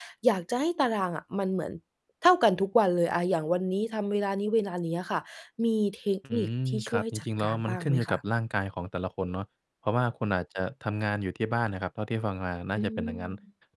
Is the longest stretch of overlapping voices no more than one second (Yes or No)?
No